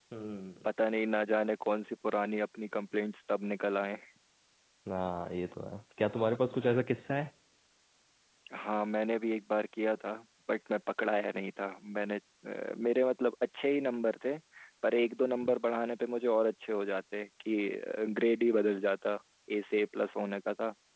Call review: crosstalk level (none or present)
none